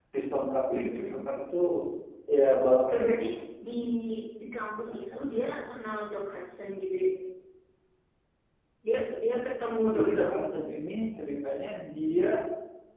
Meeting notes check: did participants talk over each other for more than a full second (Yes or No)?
No